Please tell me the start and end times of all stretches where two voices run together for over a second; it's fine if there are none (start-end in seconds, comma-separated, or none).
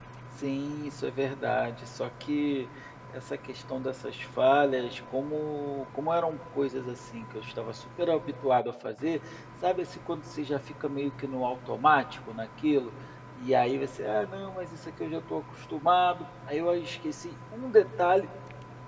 none